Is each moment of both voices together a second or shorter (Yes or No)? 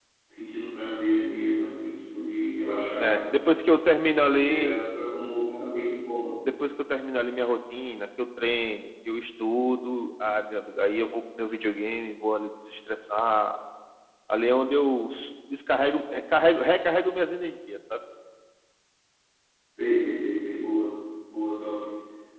Yes